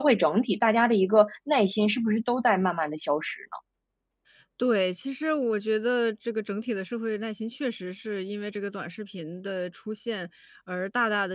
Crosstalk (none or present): none